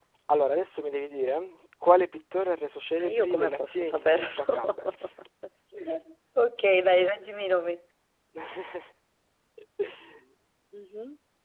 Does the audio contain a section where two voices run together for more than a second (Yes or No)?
Yes